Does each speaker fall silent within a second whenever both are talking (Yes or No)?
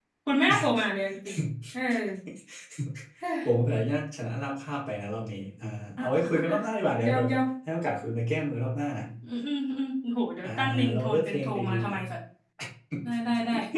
No